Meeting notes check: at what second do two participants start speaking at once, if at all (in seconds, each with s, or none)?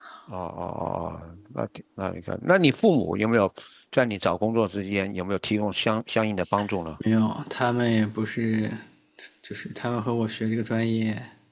none